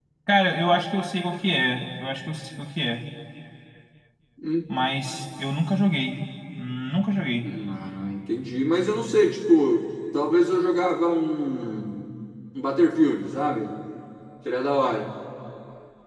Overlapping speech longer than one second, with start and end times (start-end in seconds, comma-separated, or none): none